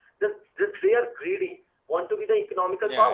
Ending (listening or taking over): taking over